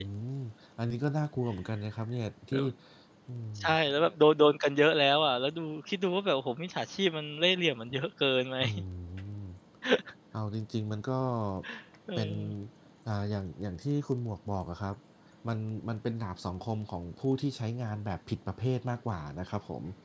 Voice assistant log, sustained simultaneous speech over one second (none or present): none